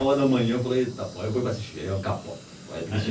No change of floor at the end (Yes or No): No